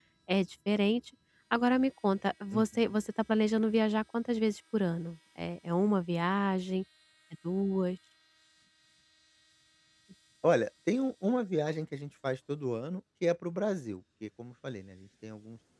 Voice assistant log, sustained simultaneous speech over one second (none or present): none